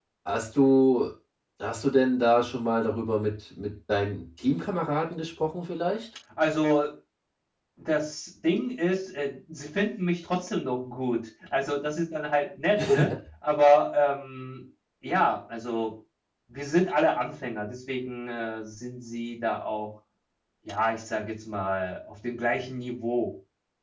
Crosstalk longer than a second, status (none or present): none